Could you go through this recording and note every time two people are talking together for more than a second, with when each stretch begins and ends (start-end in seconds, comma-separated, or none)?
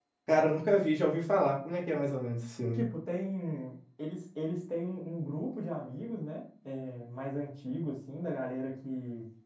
none